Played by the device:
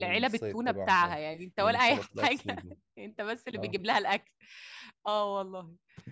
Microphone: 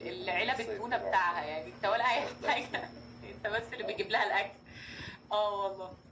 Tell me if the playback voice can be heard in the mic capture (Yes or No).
Yes